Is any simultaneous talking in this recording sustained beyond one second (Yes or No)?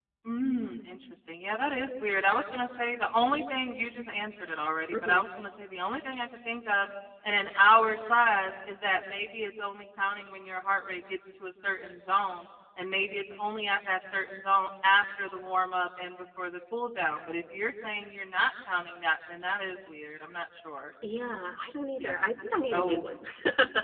No